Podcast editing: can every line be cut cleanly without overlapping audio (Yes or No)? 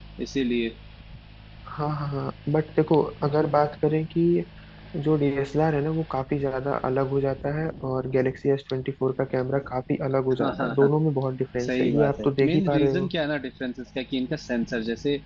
No